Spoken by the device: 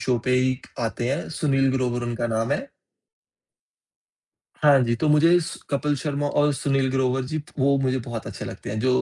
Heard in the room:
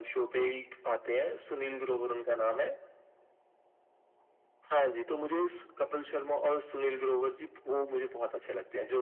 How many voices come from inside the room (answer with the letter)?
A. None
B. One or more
A